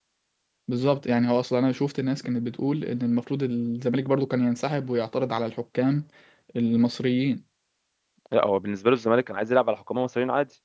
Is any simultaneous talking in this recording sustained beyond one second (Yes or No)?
No